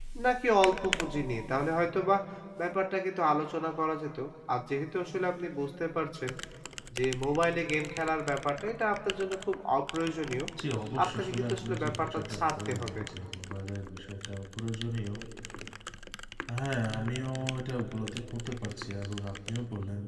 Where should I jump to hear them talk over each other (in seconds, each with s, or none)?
11.0 s